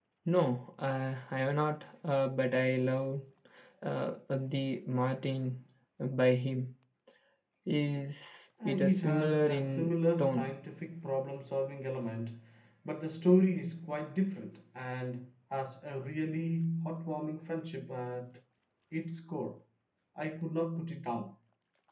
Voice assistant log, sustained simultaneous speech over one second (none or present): present